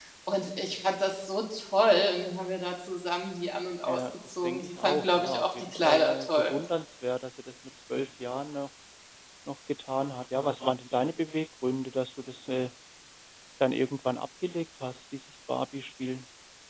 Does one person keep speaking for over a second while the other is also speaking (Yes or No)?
Yes